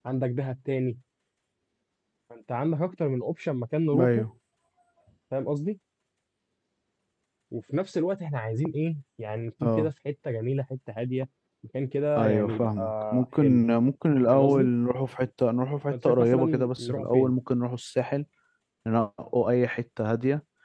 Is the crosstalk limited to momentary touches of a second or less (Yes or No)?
No